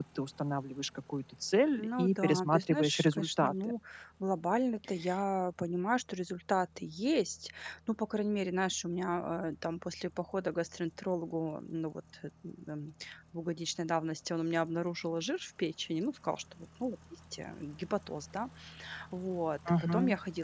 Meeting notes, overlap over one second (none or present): present